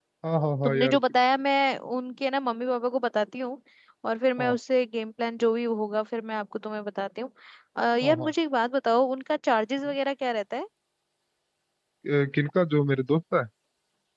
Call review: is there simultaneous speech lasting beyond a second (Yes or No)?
No